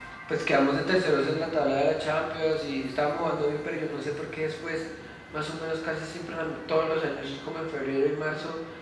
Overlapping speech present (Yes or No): No